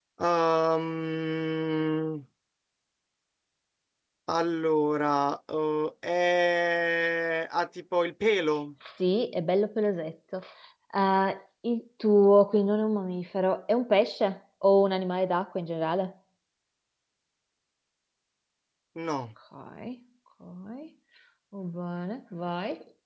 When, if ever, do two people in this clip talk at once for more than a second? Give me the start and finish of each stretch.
none

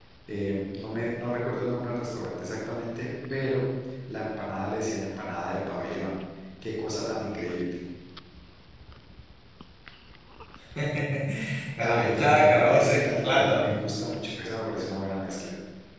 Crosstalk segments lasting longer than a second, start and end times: 11.8-13.7

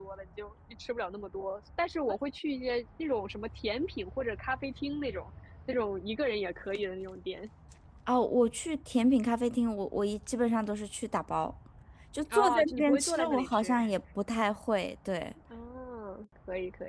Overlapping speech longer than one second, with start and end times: 12.3-13.8

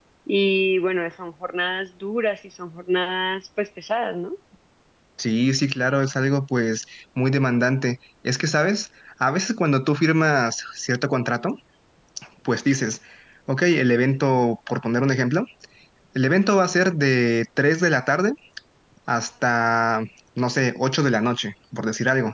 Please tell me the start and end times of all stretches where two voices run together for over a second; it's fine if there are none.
none

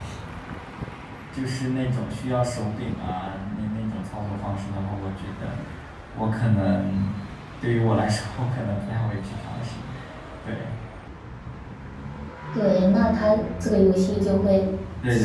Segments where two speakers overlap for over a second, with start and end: none

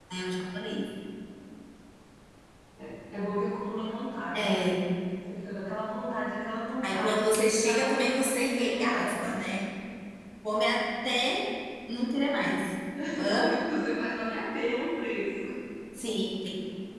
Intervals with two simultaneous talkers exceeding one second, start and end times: 6.9-9.3

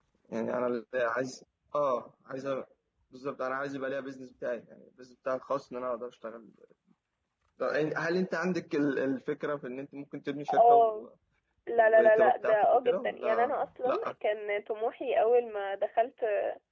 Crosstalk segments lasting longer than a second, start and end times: 11.8-14.1

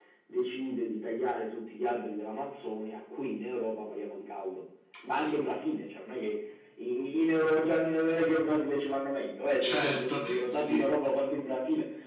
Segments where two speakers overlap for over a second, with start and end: 9.6-10.9

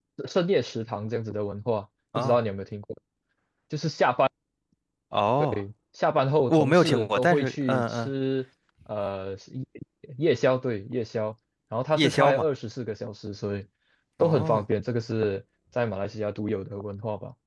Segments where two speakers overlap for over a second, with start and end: 6.5-8.1

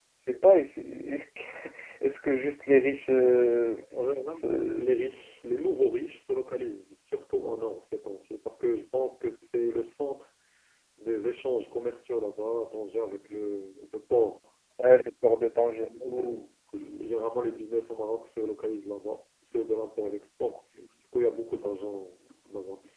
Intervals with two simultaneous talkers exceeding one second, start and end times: none

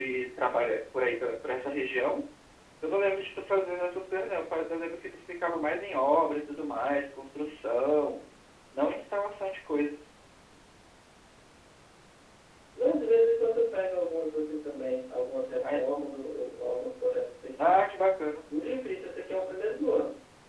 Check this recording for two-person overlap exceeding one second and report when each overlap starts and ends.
none

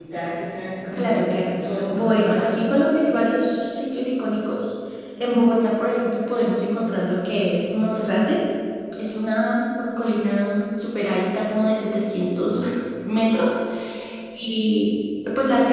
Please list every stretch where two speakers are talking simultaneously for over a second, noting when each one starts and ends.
0.9-2.4

